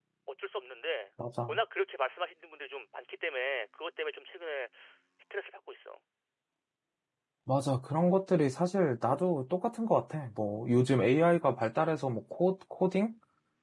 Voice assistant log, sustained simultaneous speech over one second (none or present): none